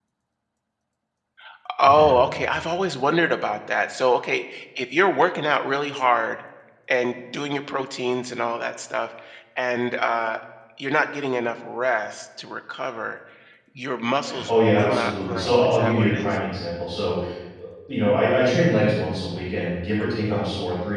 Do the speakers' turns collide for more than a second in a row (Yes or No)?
Yes